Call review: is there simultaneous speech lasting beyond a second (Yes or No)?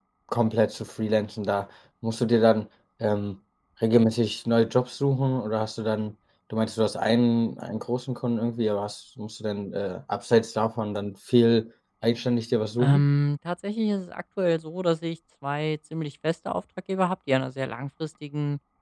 No